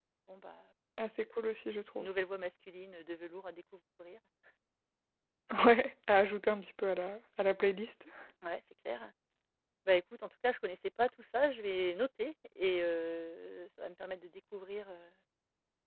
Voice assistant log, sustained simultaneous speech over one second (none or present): none